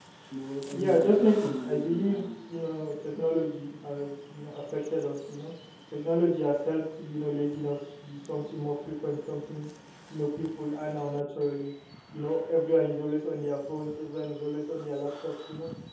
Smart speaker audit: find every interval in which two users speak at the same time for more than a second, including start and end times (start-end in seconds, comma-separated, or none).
0.7-2.6